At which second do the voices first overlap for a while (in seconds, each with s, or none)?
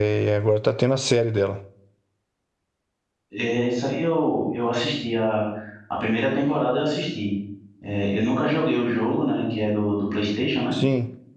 none